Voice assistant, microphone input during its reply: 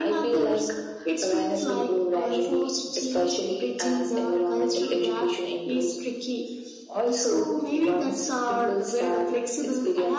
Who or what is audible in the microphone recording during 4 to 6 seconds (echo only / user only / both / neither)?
echo only